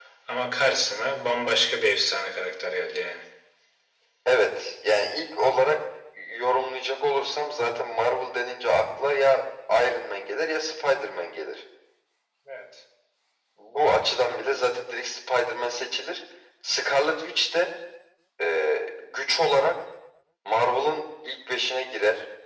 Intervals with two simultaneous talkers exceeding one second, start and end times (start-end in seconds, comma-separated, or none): none